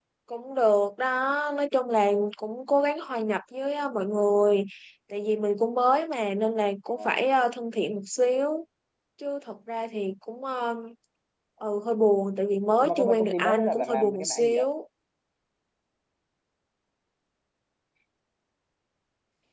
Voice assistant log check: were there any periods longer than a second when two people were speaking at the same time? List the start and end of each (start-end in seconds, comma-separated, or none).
12.8-14.7